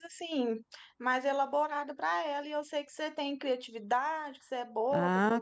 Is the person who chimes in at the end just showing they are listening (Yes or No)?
No